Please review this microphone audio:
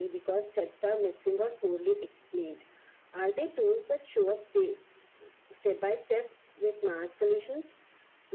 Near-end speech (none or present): none